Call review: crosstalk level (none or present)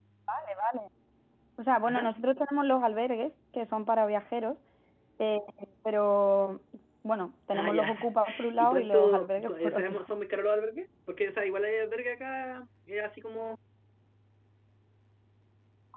present